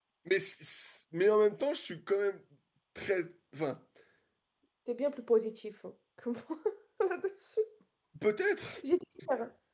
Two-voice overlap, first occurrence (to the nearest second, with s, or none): none